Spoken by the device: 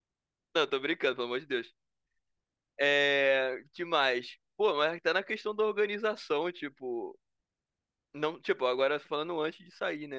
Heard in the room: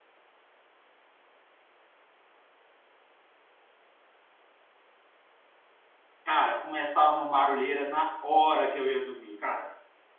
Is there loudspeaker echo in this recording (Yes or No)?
No